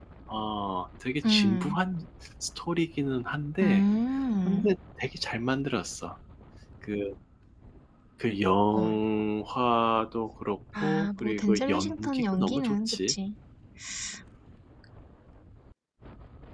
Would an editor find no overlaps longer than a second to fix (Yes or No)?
No